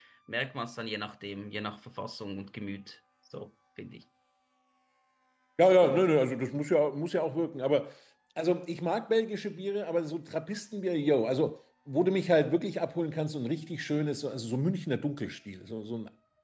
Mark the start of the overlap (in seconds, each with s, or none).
none